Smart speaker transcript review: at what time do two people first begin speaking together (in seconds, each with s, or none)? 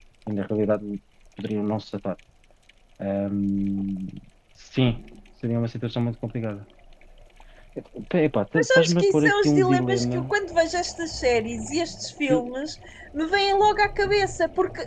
8.6 s